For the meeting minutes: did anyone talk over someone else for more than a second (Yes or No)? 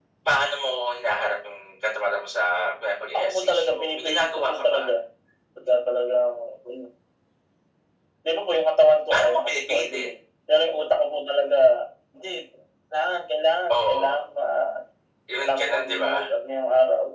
Yes